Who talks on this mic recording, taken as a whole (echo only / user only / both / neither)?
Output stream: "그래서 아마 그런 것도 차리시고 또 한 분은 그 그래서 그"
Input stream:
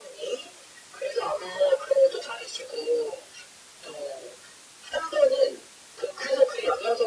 echo only